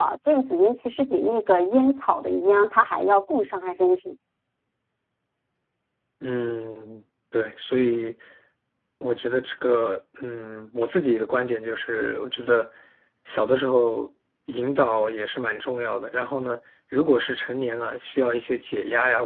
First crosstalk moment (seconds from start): none

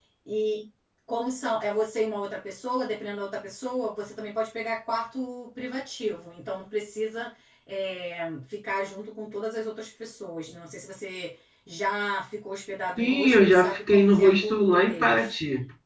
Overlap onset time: 13 s

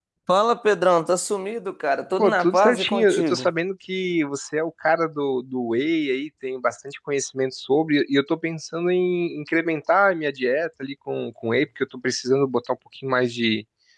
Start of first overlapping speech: 2 s

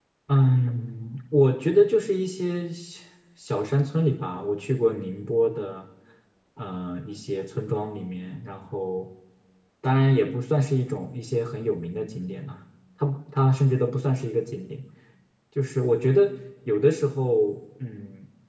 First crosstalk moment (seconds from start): none

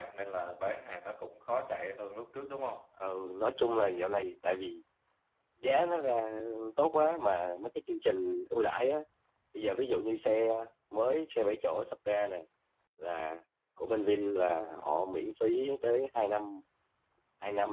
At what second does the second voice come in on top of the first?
none

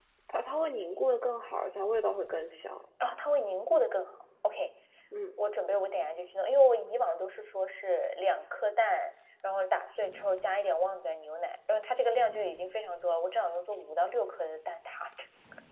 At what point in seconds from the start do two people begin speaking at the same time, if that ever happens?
none

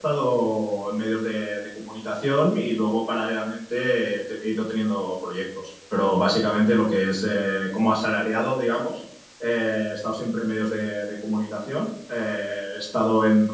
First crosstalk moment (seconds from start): none

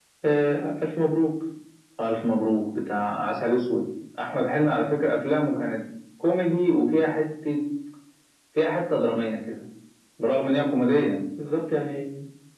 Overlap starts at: none

